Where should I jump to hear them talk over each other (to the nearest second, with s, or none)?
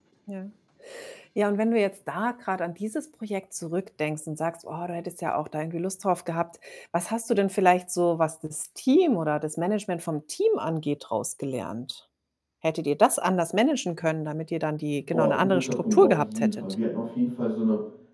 15 s